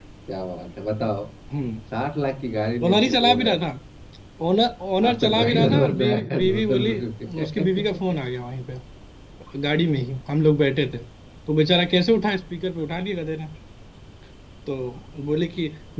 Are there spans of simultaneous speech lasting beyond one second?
Yes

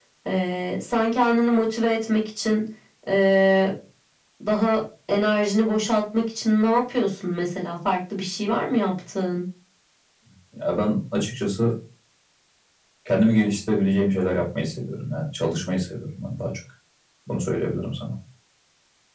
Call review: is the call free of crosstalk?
Yes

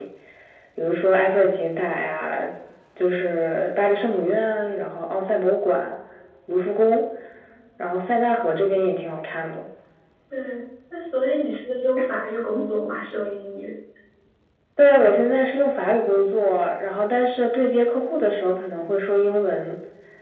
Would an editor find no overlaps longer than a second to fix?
Yes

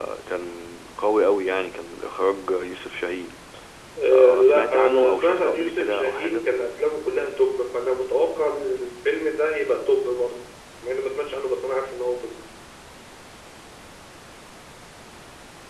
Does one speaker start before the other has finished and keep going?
Yes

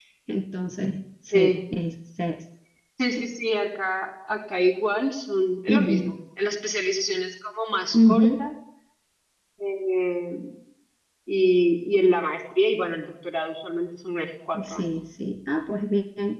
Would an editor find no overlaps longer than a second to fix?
Yes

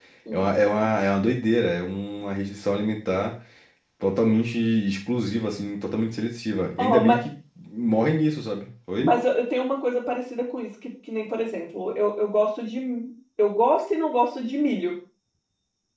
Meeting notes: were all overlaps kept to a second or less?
Yes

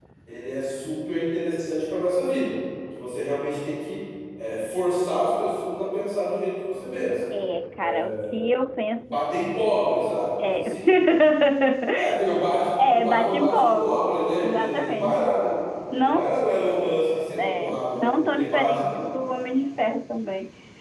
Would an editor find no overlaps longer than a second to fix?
No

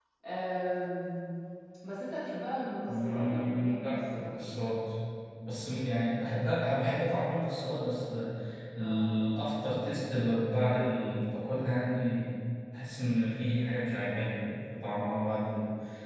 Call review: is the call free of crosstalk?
No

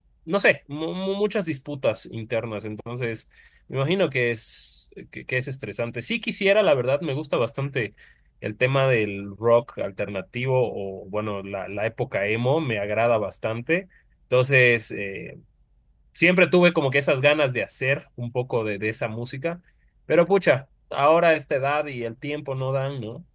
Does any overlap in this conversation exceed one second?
No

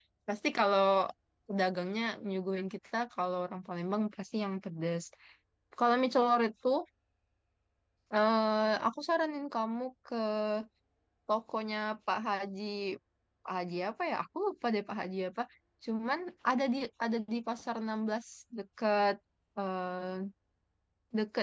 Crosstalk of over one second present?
No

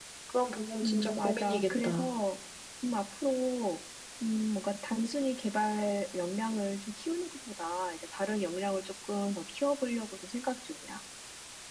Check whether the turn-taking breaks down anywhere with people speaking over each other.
Yes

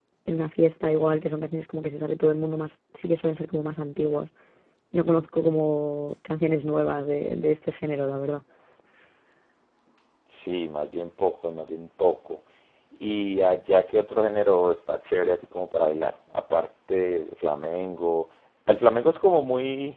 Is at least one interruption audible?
No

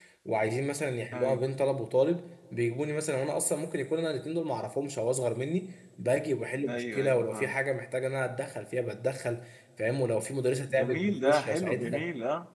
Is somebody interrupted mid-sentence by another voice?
Yes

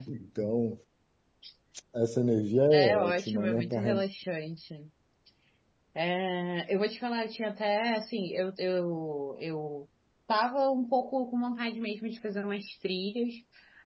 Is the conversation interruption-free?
No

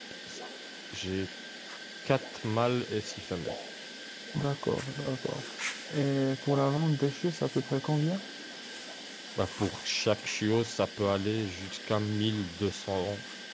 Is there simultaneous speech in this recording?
No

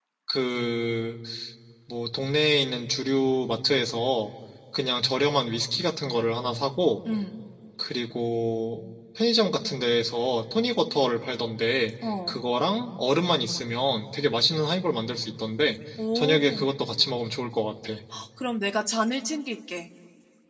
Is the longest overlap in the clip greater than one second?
No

